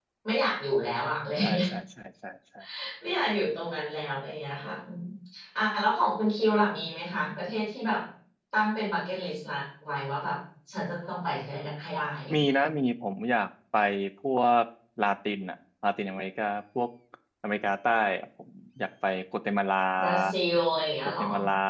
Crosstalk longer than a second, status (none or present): none